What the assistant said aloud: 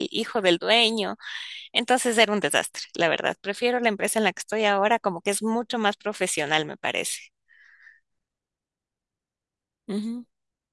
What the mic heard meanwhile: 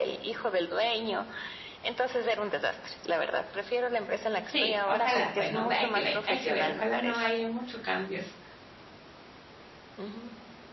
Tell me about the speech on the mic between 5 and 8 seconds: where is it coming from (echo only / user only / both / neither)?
both